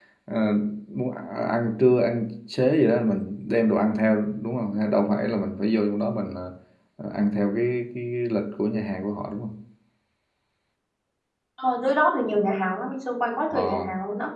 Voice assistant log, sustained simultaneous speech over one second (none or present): none